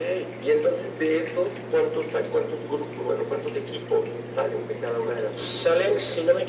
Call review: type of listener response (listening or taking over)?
taking over